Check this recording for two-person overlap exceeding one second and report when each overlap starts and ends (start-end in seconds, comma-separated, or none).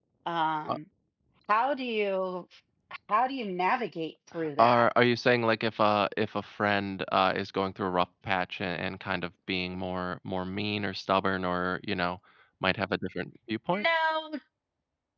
none